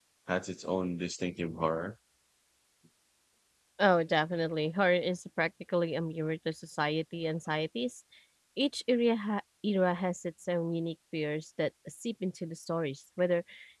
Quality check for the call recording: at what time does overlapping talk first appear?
none

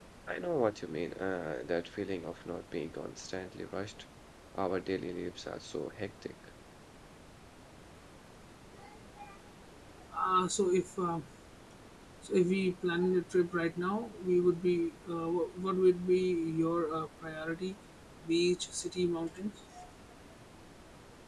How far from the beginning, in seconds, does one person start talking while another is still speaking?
none

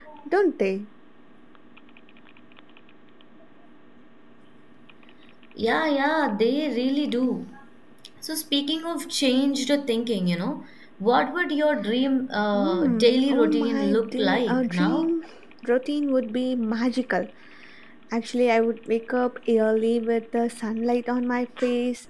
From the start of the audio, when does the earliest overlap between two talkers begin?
12.5 s

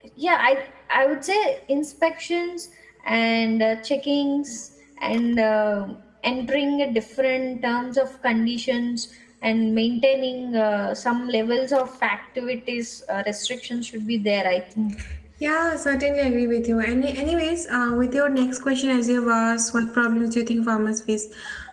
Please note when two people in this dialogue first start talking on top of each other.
none

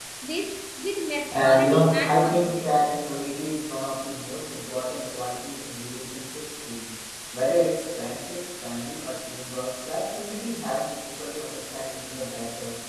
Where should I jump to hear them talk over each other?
1.3 s

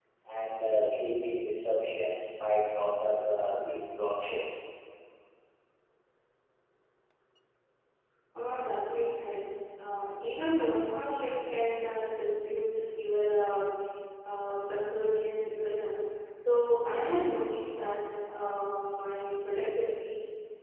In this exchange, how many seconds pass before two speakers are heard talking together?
none

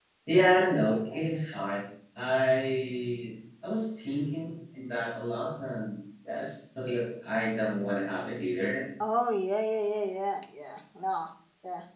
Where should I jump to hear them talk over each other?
none

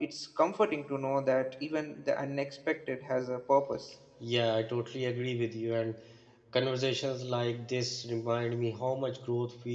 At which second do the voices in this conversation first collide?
none

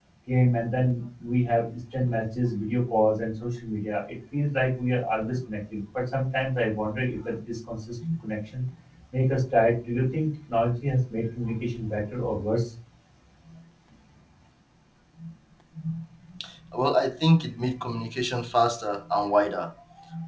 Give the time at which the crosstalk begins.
none

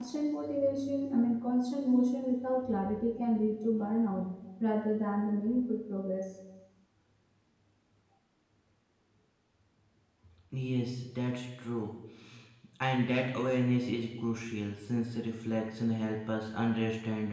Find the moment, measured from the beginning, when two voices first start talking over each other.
none

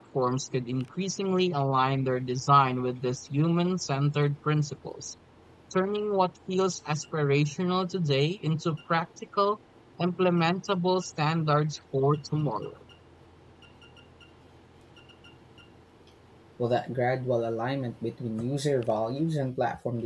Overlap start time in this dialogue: none

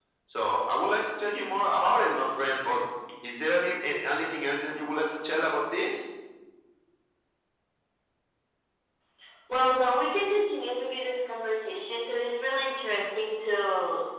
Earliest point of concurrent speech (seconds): none

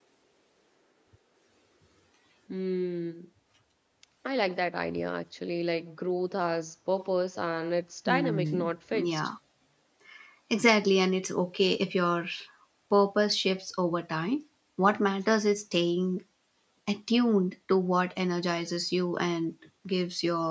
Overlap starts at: 8.1 s

